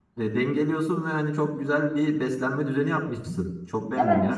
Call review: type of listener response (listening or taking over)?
taking over